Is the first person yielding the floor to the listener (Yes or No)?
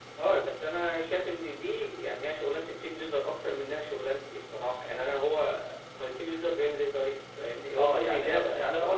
Yes